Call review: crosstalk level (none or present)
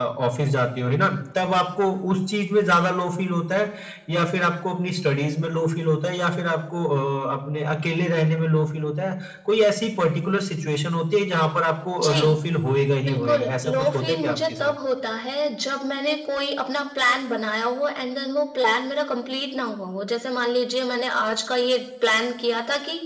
present